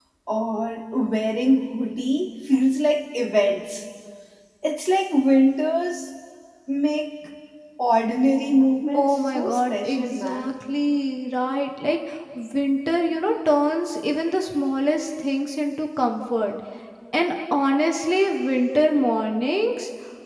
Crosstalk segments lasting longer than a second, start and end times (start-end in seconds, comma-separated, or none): 8.9-10.5